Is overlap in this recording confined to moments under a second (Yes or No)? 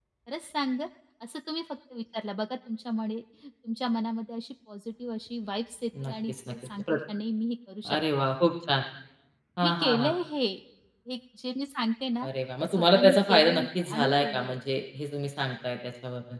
No